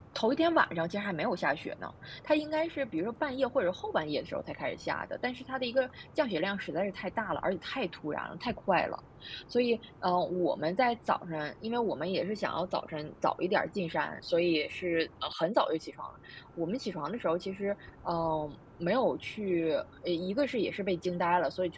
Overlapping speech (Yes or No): No